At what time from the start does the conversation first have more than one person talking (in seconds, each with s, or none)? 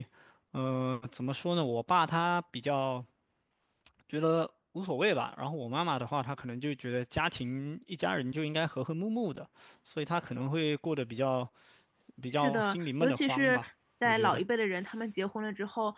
12.3 s